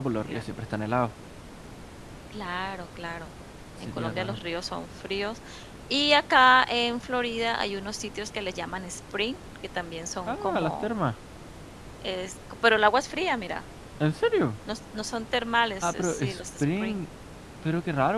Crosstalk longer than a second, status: present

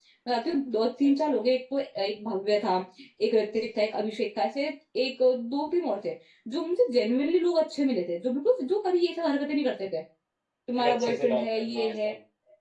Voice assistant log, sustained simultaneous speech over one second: present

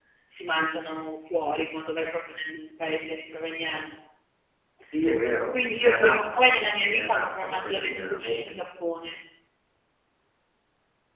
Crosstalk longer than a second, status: present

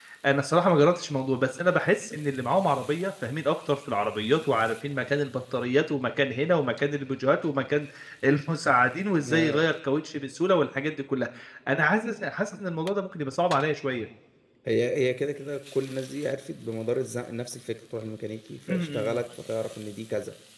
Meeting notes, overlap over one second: none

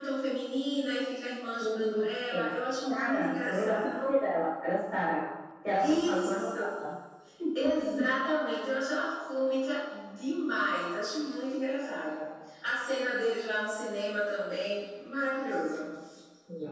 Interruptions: present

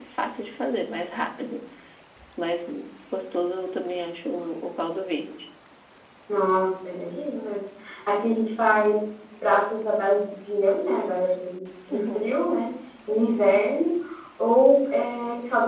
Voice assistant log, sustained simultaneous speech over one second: none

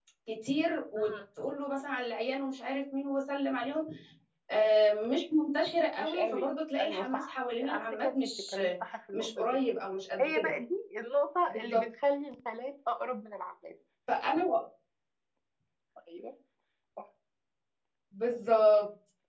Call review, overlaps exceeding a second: present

